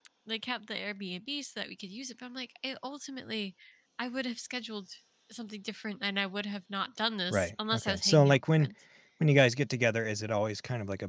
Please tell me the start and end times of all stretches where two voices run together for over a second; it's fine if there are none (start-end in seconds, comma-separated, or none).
7.3-8.7